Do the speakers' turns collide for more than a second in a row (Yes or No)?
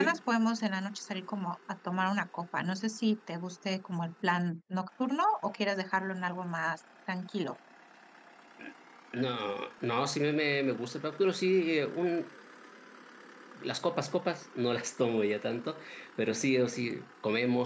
No